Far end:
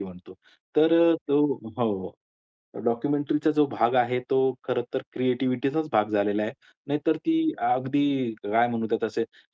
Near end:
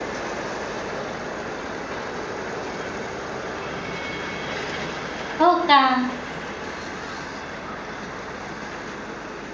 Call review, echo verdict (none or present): none